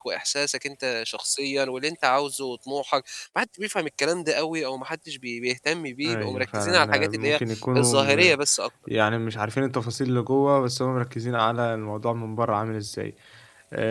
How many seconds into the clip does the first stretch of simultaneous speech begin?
6.0 s

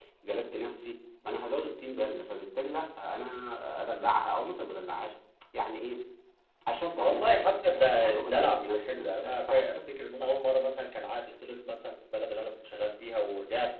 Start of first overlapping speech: 6.9 s

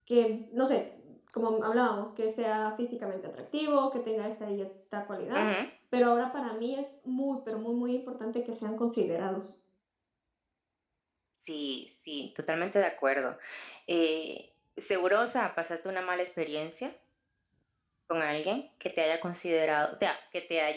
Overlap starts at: none

